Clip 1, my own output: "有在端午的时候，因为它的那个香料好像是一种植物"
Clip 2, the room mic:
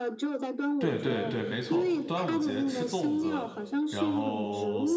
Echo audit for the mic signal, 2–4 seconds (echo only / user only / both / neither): both